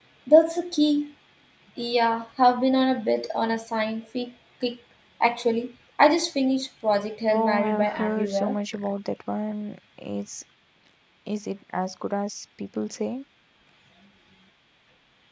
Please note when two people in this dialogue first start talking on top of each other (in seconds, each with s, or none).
7.3 s